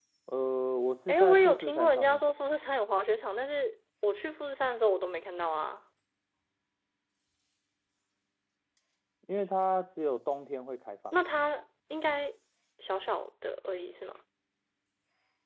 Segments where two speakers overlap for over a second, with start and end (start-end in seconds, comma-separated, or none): 1.1-2.3